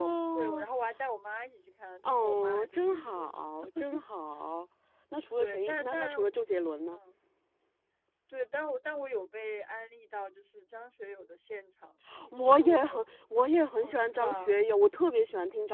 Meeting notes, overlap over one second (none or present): present